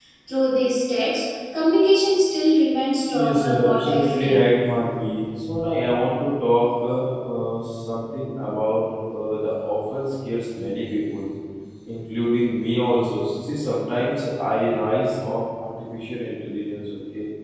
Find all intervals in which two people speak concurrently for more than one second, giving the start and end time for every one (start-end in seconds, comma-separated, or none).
3.1-4.4